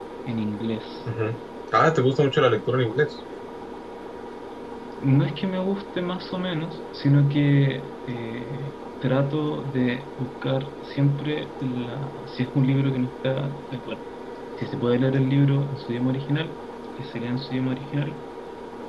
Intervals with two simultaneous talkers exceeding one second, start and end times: none

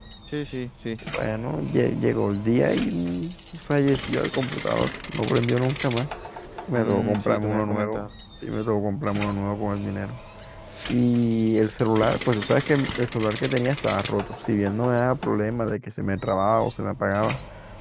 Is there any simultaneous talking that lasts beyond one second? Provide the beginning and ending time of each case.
6.7-8.1

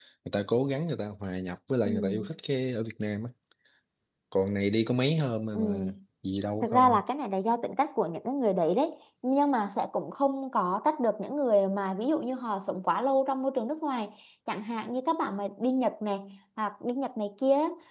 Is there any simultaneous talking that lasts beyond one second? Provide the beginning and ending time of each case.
none

